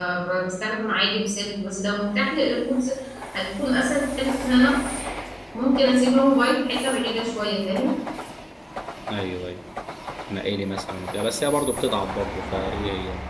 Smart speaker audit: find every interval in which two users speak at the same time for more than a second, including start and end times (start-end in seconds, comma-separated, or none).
none